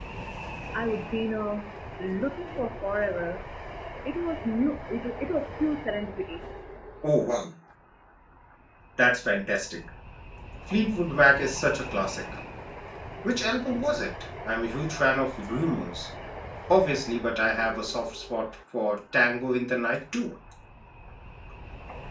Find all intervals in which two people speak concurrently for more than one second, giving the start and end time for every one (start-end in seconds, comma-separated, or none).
none